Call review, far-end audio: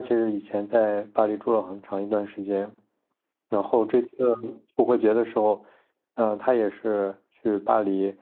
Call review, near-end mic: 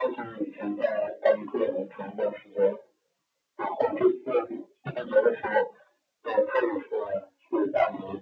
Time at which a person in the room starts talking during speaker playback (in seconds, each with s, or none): none